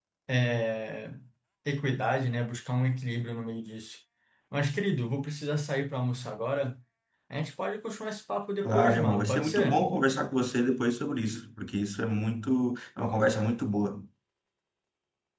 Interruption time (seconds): 8.6 s

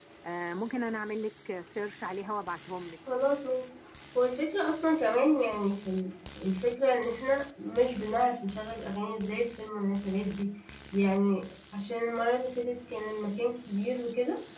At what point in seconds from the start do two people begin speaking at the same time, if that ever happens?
none

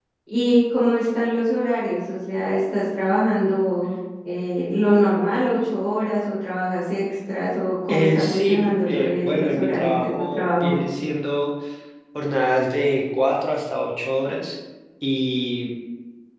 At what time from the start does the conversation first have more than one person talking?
7.9 s

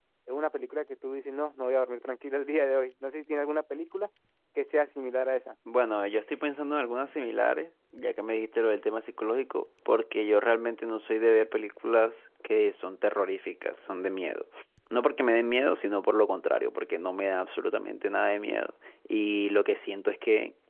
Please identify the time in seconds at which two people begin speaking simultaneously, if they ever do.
none

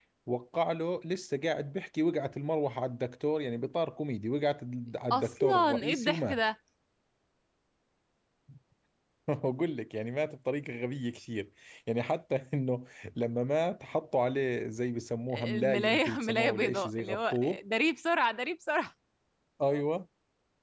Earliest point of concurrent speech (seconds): 5.1 s

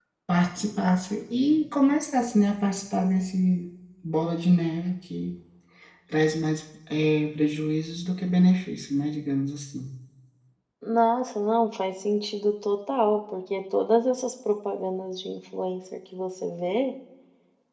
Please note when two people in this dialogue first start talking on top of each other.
none

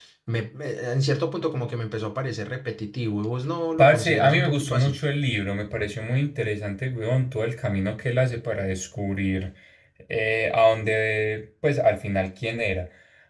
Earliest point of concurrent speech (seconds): 3.8 s

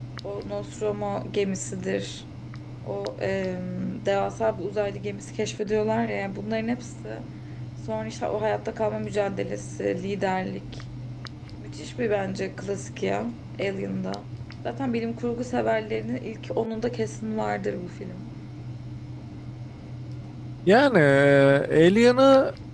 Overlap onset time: none

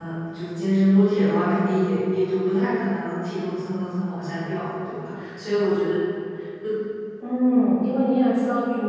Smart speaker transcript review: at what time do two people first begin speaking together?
none

